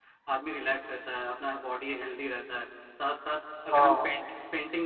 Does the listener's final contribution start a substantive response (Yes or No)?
No